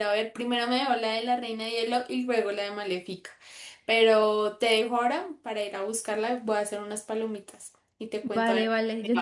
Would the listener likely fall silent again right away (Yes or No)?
No